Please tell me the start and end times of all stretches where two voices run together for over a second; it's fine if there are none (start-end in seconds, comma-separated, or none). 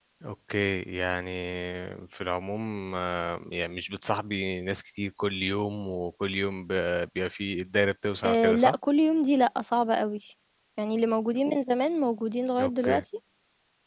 none